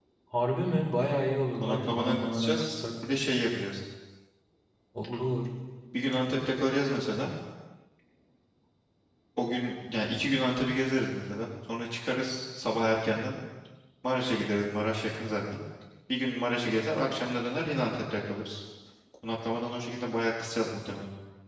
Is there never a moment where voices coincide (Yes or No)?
No